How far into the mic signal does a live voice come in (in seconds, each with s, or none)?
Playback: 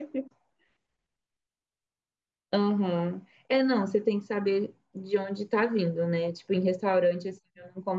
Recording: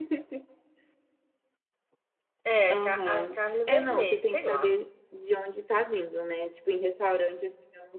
2.4 s